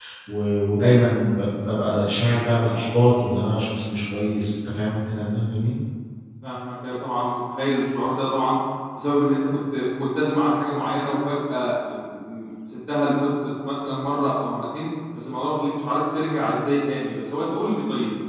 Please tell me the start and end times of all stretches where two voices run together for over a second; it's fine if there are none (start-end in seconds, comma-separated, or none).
none